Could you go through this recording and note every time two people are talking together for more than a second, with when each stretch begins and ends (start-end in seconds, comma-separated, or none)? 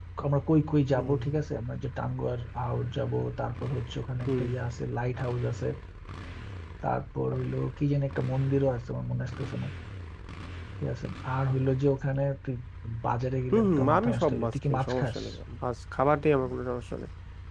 13.5-15.2